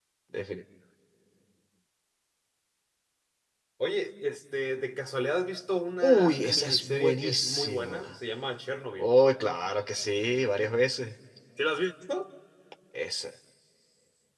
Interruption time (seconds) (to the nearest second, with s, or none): 6 s